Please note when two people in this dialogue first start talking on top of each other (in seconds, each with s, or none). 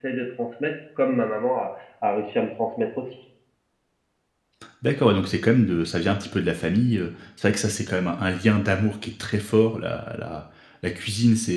none